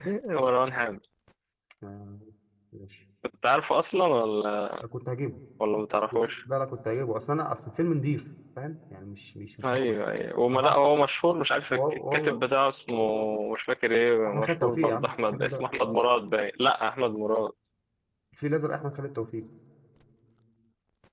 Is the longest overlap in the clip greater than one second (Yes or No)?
Yes